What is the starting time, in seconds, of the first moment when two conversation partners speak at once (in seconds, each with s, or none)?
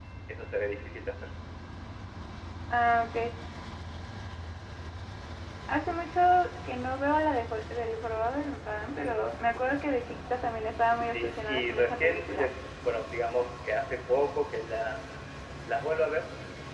10.8 s